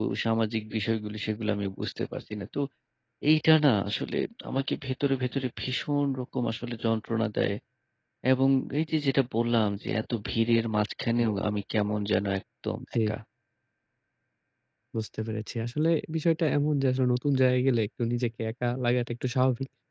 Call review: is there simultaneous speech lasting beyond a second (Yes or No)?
No